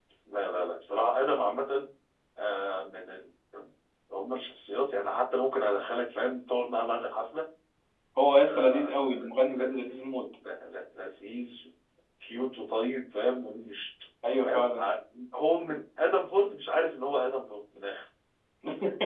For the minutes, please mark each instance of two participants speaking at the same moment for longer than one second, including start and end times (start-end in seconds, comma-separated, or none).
8.4-9.8